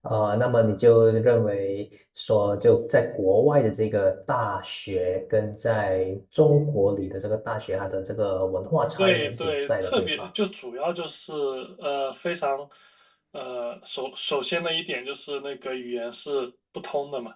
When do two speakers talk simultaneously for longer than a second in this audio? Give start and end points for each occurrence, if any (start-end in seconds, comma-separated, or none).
9.0-10.3